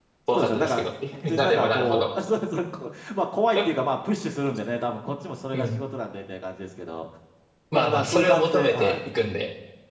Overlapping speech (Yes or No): Yes